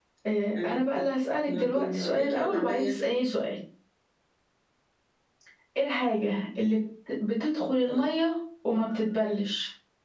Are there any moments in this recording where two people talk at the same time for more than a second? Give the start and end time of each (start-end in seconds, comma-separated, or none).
1.5-3.0